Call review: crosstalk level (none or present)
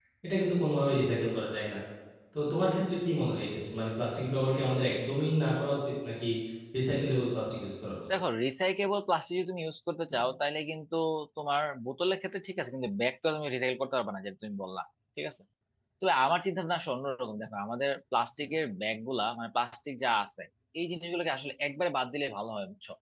none